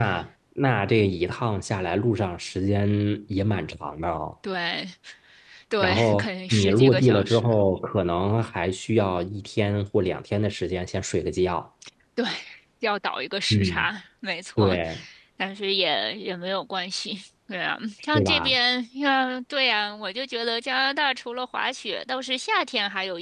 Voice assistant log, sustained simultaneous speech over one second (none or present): present